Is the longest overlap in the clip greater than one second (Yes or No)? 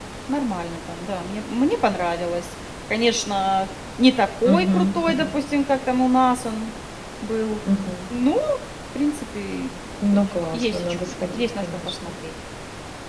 Yes